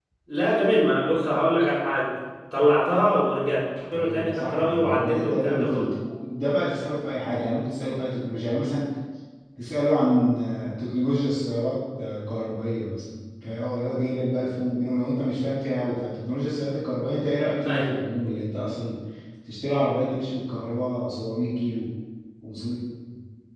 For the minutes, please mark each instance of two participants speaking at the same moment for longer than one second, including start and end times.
3.9-5.9

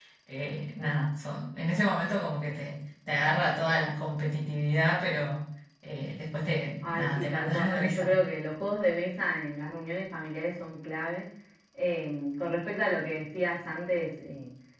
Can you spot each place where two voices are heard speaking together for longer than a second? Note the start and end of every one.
6.8-8.1

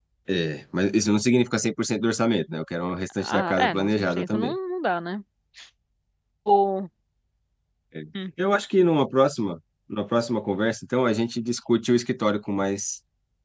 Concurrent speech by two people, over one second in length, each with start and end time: 3.2-4.5

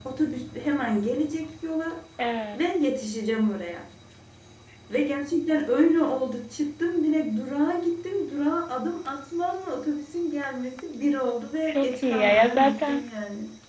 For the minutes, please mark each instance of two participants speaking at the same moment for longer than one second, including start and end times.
11.6-13.1

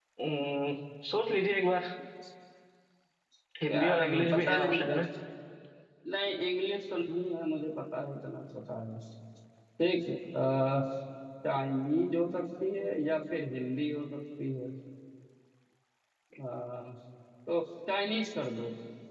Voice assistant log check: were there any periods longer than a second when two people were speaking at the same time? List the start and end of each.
3.7-5.0

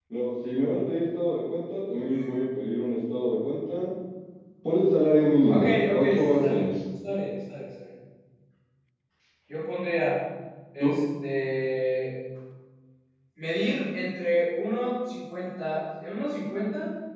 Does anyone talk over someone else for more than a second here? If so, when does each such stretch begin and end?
5.5-6.7

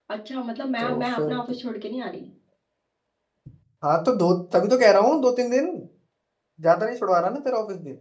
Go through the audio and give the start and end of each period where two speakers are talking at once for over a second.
none

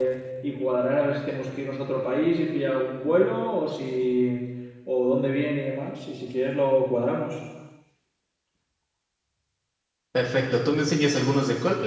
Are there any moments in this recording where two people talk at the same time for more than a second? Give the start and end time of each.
none

